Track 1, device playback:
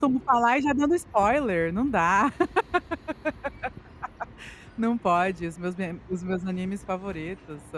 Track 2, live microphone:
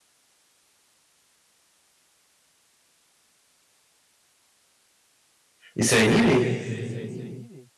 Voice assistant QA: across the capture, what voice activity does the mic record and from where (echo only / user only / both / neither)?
user only